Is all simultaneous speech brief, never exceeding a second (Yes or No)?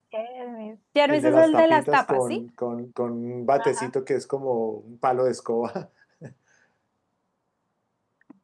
No